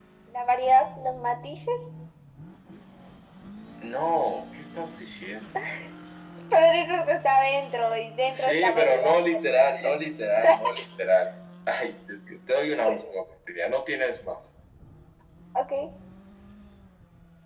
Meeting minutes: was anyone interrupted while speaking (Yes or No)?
Yes